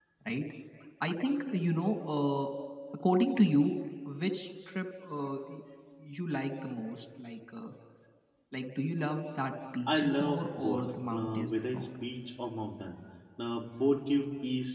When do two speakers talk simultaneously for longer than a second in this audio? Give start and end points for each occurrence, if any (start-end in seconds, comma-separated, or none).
9.9-11.9